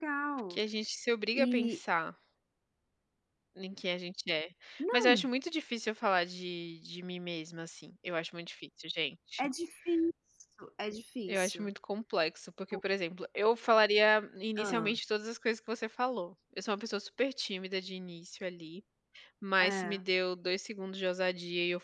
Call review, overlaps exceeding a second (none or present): none